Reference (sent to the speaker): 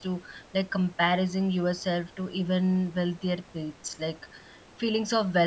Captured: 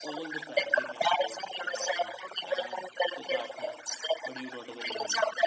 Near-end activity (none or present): present